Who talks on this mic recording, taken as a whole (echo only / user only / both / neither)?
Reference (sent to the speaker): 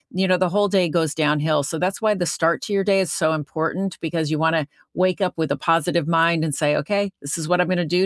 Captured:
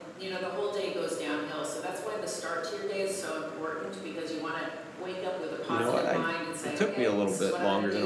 both